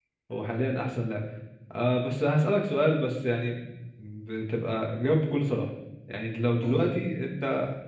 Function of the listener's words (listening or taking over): listening